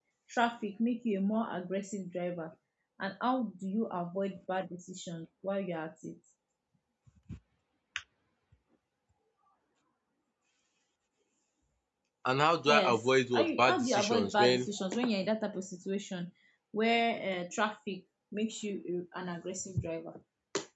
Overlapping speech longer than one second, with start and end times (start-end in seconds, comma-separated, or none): 12.7-14.7